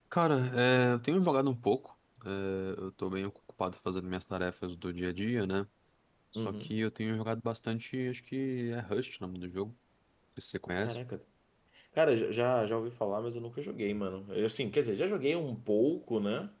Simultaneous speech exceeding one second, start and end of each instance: none

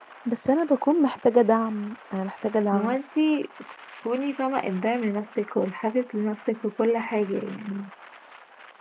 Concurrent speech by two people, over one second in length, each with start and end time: none

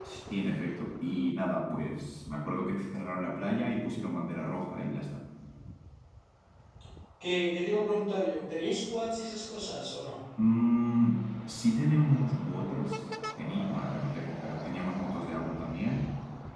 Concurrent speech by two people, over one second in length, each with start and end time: none

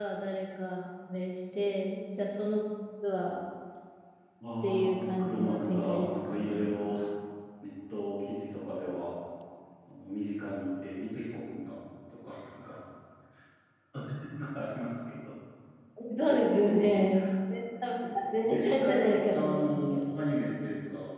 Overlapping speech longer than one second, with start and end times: 4.6-7.0, 18.5-20.3

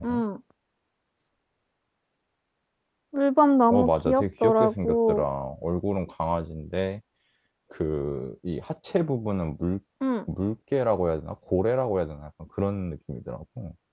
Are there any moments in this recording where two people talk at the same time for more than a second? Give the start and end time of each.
3.7-5.2

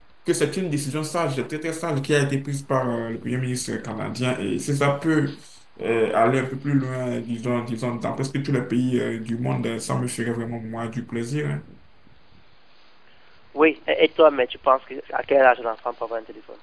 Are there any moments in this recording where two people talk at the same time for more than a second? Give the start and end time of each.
none

